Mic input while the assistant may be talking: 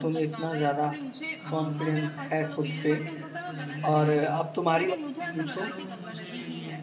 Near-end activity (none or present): present